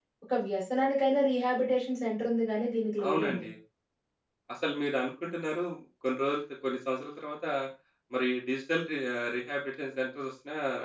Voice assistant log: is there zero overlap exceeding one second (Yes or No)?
Yes